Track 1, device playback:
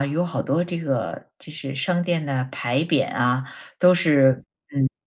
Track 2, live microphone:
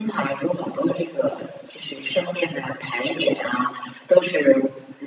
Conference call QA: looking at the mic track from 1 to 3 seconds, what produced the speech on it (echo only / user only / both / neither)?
echo only